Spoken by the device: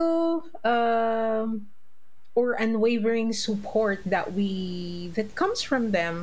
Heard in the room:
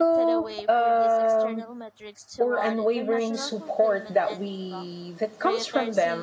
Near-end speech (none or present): present